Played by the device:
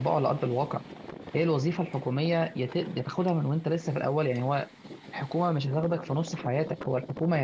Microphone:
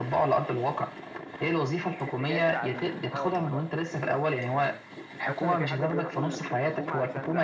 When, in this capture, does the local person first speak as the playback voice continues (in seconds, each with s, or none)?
2.1 s